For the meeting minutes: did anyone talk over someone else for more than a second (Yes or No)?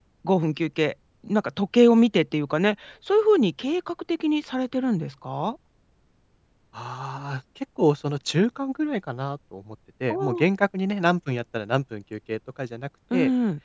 No